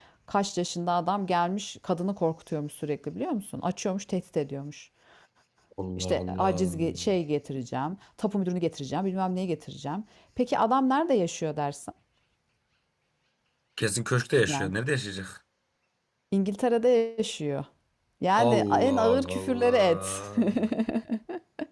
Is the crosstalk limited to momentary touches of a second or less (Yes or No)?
No